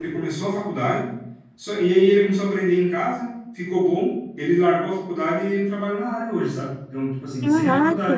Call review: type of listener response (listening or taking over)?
listening